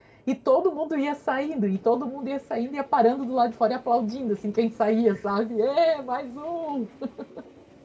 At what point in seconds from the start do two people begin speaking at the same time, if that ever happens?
none

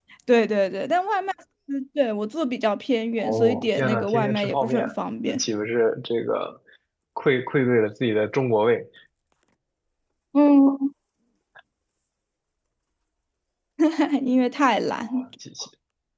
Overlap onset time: 3.2 s

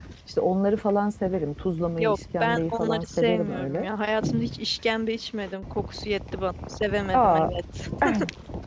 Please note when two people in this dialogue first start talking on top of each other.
2.0 s

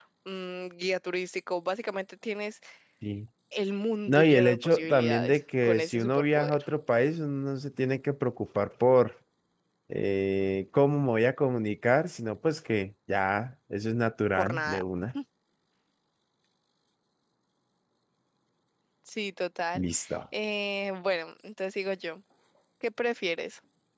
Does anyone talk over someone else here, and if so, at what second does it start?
4.1 s

